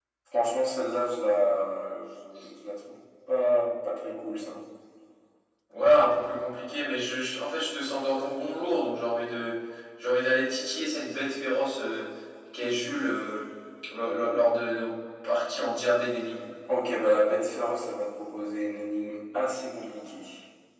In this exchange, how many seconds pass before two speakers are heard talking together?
none

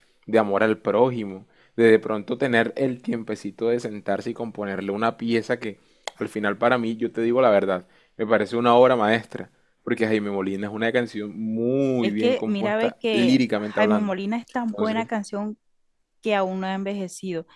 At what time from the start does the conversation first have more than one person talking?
12.0 s

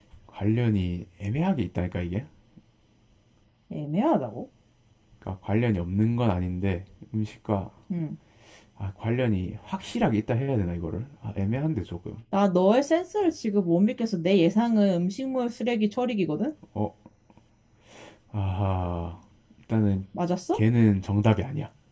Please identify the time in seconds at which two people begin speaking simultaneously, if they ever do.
none

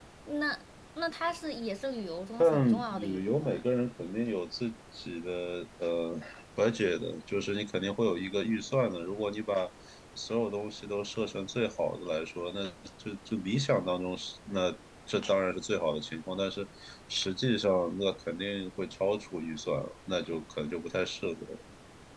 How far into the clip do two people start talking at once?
2.4 s

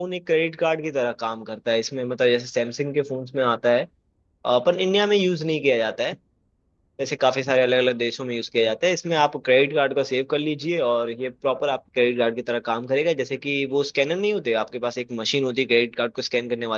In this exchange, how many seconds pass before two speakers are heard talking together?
none

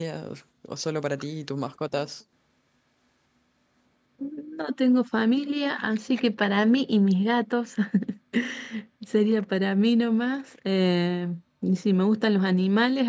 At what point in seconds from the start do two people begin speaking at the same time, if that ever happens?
none

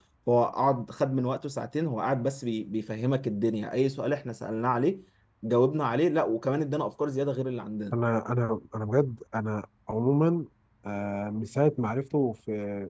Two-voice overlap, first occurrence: none

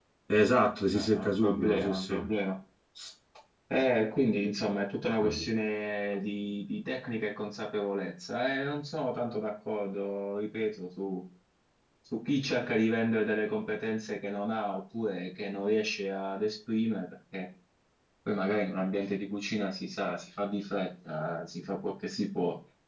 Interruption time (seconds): 0.9 s

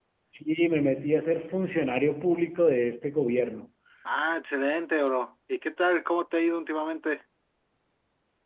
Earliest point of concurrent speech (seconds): none

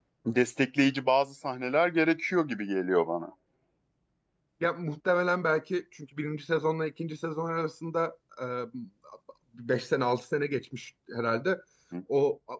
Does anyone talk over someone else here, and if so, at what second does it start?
none

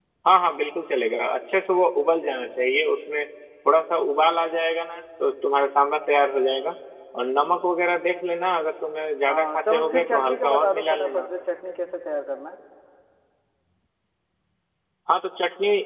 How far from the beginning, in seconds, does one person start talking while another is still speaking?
9.3 s

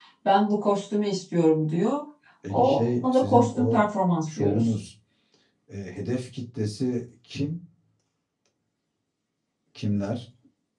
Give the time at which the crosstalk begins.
2.5 s

